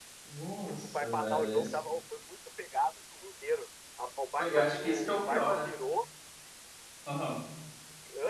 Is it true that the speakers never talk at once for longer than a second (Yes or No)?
No